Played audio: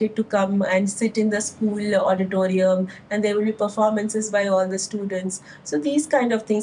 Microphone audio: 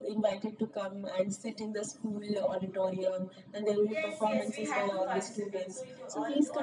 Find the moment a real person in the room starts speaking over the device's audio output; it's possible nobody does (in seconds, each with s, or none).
3.8 s